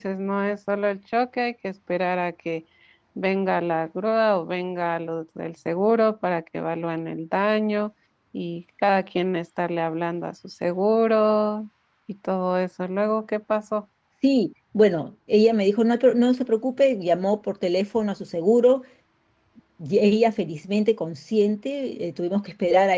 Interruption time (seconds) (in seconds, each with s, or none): none